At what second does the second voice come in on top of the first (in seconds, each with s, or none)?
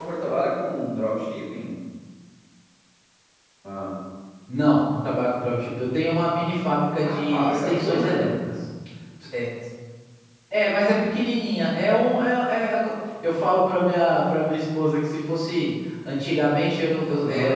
7.0 s